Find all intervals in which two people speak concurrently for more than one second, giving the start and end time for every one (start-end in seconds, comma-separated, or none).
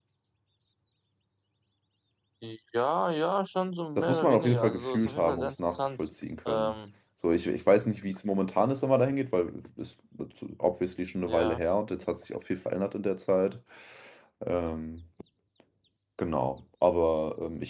4.0-6.0